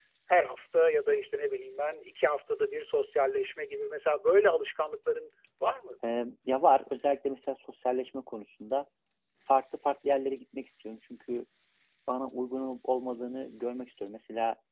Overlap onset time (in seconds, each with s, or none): none